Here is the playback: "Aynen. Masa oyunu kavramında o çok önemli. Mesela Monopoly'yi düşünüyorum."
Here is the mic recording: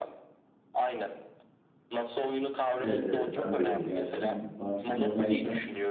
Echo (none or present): present